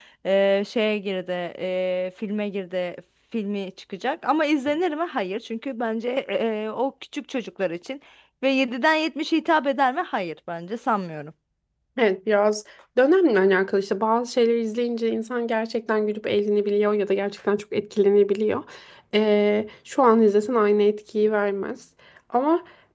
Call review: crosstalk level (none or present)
none